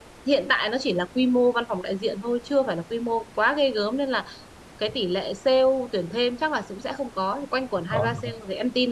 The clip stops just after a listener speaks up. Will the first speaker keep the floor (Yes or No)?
Yes